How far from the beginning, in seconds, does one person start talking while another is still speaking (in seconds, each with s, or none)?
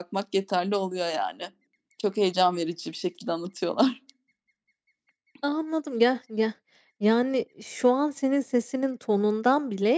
none